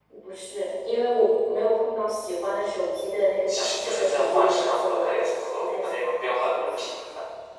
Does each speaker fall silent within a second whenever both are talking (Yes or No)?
No